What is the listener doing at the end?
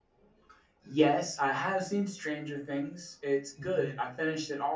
listening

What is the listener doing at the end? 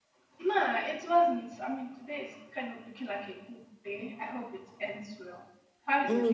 taking over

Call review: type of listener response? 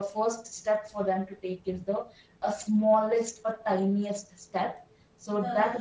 listening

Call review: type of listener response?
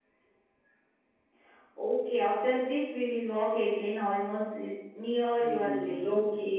taking over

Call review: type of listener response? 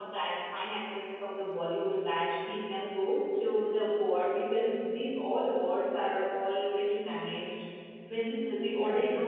listening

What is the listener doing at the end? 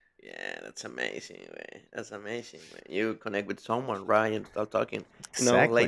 listening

